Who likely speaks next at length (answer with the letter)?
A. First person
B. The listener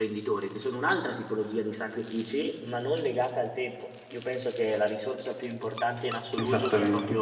A